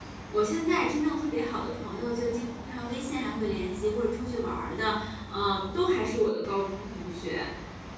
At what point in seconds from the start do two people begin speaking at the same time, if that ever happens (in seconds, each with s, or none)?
none